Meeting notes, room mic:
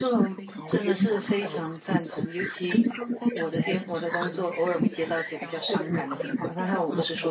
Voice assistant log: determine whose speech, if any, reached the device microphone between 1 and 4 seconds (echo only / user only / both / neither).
both